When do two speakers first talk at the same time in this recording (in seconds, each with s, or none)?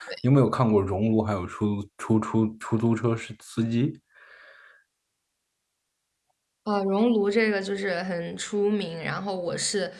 none